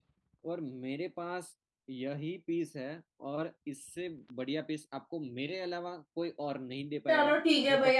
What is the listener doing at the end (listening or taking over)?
taking over